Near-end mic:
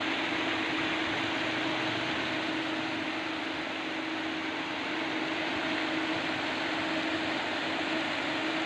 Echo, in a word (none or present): none